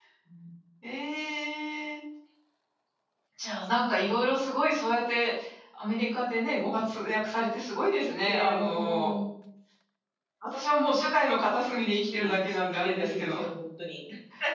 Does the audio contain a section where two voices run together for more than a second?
Yes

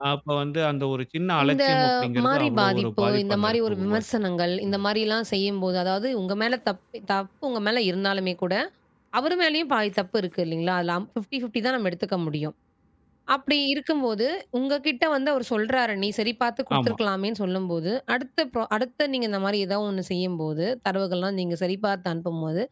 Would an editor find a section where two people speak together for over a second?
Yes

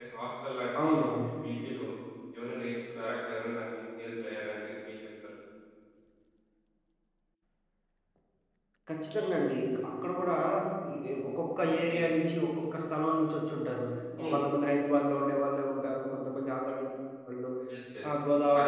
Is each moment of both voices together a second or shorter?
Yes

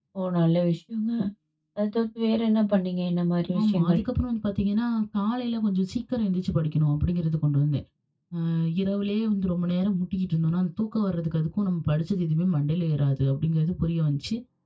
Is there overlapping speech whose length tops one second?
No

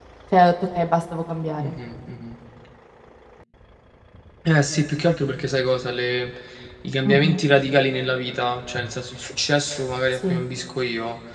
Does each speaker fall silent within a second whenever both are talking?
Yes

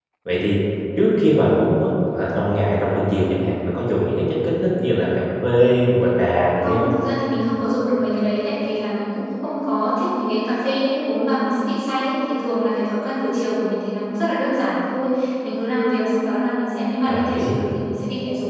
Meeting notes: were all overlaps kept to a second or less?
Yes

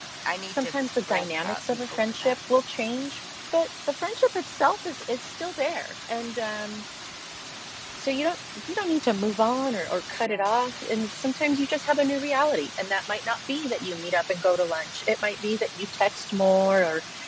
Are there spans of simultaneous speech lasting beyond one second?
Yes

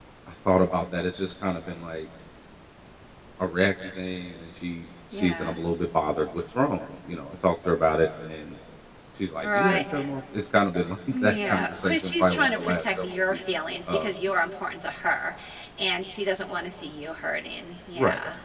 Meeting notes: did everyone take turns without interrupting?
No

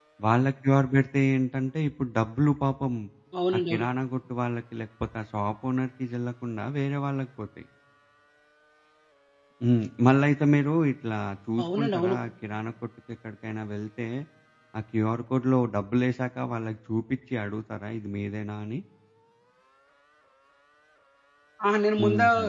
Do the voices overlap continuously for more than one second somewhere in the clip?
No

